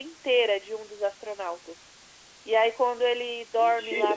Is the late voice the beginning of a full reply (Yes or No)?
No